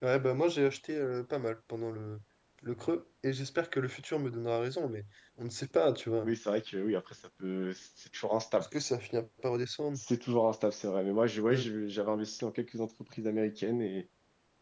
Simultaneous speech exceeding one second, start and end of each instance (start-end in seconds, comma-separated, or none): none